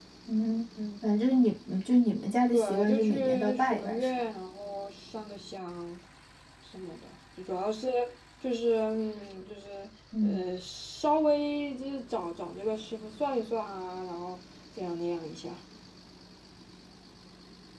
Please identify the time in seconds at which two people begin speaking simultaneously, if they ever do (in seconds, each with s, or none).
2.5 s